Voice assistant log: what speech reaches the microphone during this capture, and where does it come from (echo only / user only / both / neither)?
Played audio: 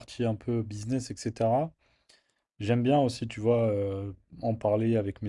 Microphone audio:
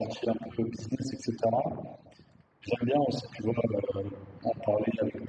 echo only